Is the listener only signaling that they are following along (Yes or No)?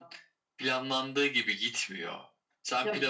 Yes